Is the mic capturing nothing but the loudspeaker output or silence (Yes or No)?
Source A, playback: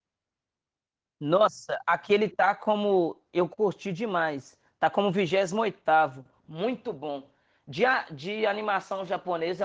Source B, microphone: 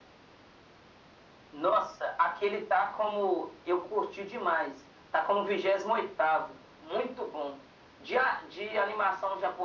Yes